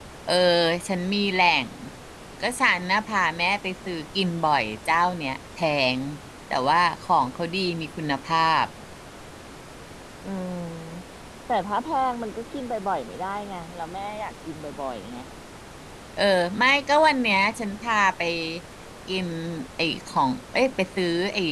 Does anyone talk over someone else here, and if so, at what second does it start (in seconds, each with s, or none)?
none